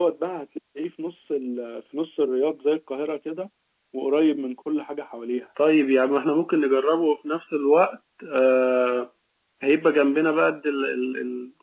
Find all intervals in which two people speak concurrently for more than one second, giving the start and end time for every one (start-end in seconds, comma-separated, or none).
none